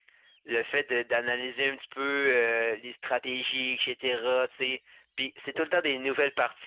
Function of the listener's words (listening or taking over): listening